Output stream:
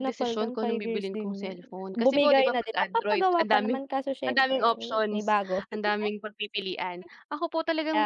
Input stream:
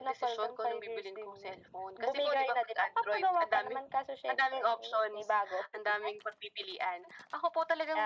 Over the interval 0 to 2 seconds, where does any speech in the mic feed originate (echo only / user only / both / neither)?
echo only